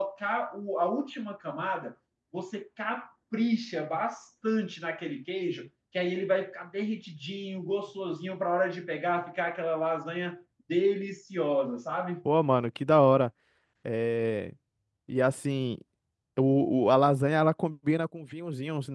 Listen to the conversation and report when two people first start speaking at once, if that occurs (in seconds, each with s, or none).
none